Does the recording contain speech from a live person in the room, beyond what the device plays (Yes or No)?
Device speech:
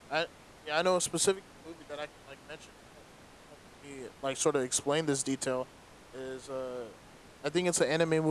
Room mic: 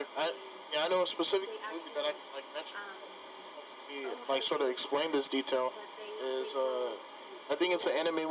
Yes